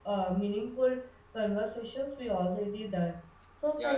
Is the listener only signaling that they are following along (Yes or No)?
No